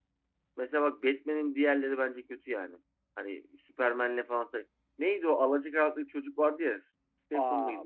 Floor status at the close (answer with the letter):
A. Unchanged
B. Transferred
B